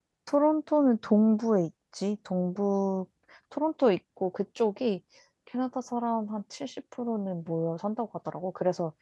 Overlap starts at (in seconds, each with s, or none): none